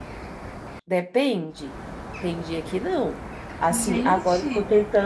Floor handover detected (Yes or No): No